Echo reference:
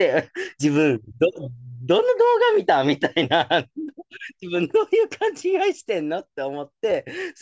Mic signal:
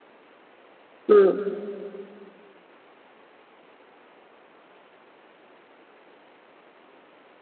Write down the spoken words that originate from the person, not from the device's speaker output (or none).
うん、